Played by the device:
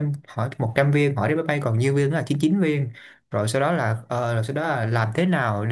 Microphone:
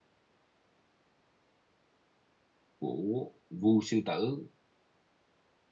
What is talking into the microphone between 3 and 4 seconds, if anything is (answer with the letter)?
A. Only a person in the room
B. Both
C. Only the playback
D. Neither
A